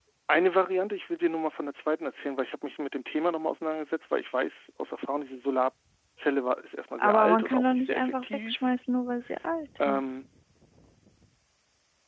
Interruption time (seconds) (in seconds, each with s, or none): 7.0 s